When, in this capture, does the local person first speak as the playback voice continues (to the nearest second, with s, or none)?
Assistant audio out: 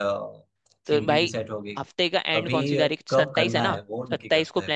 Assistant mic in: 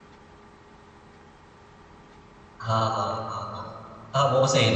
3 s